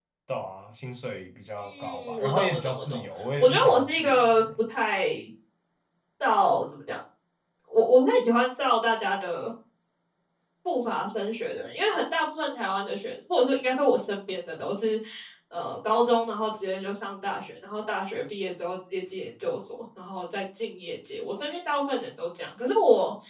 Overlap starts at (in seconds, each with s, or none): 1.7 s